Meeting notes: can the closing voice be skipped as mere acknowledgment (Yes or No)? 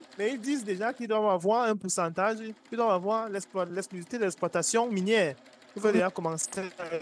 Yes